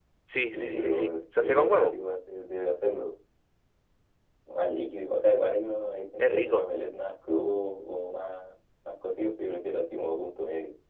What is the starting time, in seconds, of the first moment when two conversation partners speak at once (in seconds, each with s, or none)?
0.5 s